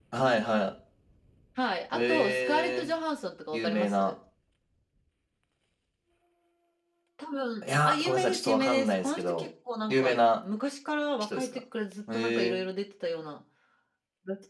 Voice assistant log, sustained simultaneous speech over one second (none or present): present